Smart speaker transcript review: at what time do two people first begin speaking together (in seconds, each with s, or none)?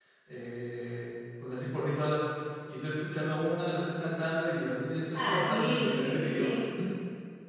5.1 s